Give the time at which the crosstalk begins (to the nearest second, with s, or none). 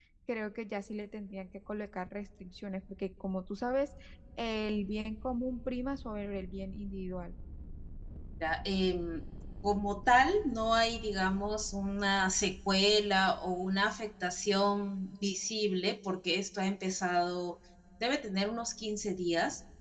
none